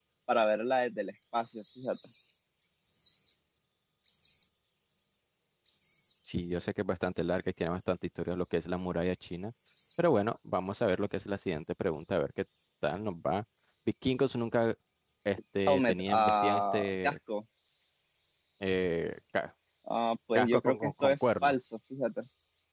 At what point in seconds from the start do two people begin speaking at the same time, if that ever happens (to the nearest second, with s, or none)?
16 s